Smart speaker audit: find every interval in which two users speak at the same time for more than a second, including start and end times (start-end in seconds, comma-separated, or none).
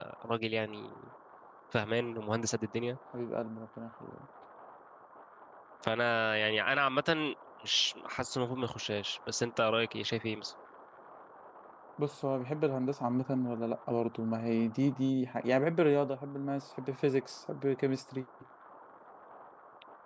none